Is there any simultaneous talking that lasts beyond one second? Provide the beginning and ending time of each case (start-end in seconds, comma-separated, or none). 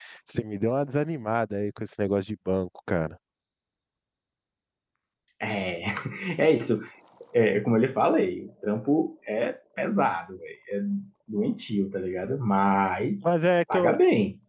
none